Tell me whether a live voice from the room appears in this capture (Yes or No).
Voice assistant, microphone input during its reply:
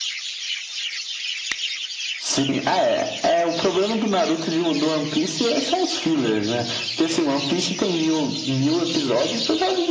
No